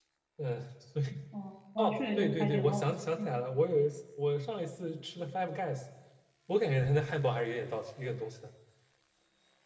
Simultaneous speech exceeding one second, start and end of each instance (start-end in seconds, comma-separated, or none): 1.8-3.4